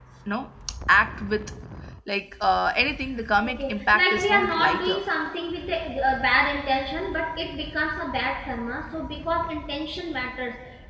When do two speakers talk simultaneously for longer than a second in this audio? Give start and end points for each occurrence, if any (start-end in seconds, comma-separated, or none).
3.5-5.0